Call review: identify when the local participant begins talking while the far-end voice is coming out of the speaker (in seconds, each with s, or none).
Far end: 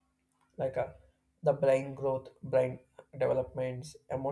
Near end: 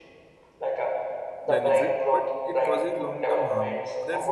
1.4 s